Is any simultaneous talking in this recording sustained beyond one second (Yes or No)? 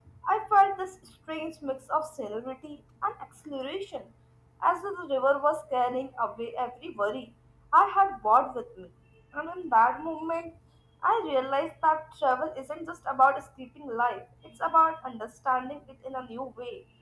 No